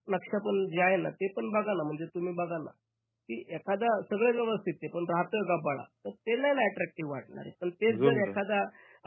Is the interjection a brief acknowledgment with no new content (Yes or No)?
Yes